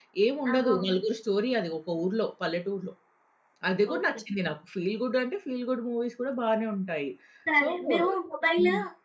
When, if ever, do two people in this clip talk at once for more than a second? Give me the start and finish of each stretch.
none

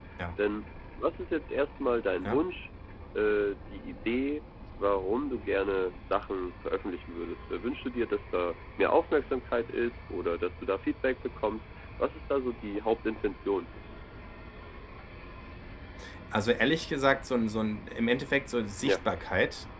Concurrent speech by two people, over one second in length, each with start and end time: none

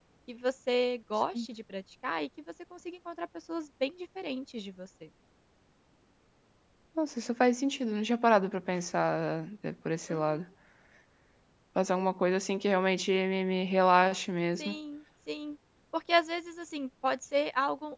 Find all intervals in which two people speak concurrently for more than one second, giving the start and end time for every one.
none

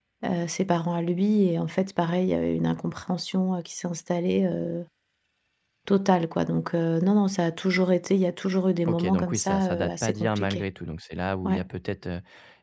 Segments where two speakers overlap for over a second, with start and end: 8.9-10.6

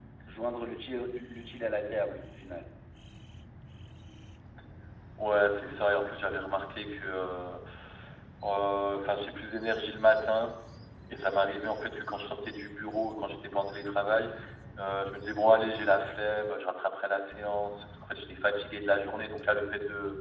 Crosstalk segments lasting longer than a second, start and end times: none

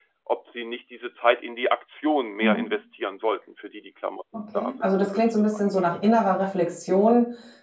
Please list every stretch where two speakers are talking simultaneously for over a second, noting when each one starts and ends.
4.5-6.0

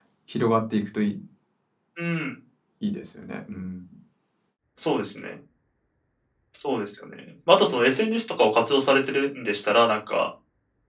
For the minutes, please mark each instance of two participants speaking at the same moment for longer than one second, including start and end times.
none

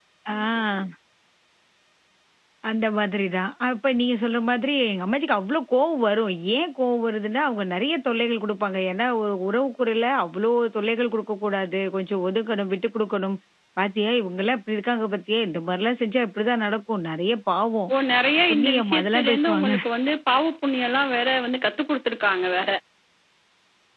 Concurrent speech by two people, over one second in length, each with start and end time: 18.5-19.7

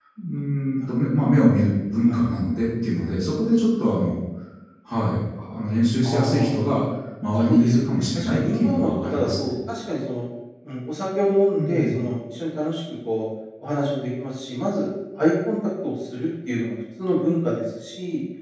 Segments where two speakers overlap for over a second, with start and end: 7.4-9.5

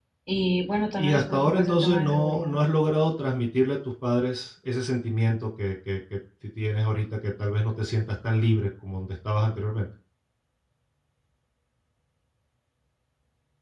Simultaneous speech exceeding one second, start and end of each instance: 1.0-2.6

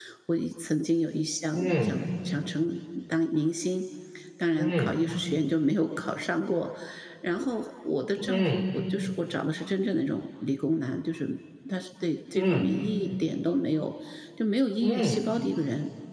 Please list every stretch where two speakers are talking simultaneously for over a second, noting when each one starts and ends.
none

